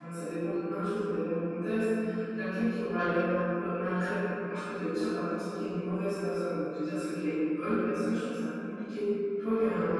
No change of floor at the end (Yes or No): Yes